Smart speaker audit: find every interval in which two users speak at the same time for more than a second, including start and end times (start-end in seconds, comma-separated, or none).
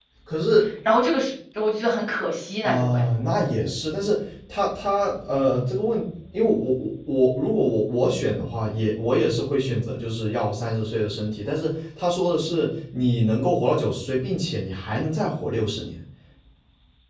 none